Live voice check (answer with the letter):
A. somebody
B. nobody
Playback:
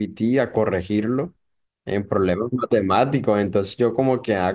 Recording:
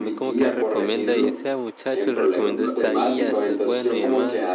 A